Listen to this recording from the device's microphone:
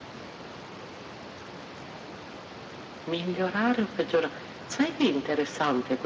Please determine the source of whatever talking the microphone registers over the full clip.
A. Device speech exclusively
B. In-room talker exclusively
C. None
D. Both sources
A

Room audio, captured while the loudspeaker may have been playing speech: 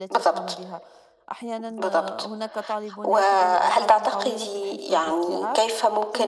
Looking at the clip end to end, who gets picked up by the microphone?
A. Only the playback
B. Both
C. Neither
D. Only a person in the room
B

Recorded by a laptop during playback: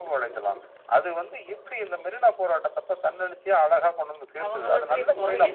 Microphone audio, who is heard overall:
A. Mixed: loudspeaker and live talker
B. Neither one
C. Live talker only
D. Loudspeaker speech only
A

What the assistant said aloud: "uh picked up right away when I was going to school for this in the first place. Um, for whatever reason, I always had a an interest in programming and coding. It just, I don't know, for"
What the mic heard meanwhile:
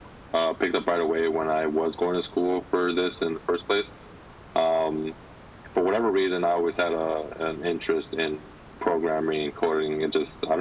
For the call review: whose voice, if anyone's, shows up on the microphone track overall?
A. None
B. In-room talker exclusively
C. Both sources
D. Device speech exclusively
D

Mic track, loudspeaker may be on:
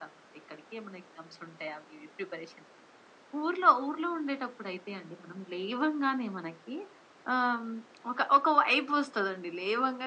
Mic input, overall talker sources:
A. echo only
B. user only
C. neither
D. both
A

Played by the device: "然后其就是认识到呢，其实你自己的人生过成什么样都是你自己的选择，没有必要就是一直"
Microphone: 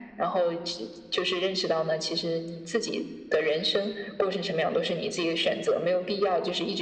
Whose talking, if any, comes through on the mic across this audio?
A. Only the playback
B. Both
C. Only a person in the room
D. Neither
A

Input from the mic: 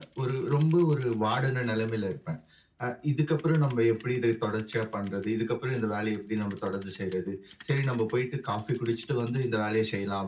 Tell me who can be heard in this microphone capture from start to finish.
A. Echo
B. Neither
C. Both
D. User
A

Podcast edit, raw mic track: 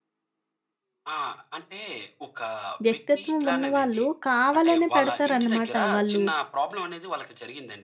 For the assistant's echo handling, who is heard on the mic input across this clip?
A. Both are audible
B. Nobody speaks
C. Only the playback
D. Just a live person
A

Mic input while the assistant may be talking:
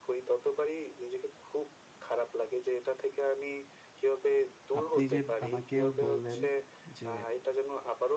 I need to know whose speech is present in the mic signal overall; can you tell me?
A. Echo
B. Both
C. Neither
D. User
B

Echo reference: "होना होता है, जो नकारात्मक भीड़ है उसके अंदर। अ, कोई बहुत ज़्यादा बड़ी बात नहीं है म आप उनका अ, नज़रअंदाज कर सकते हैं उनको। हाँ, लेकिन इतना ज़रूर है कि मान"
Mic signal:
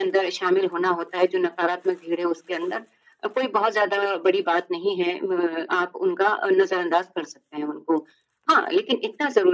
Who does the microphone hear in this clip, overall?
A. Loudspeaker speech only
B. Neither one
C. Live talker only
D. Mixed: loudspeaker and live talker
A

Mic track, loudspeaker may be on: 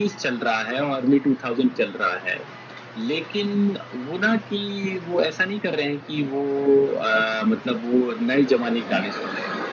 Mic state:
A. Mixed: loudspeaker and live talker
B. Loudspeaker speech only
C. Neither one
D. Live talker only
B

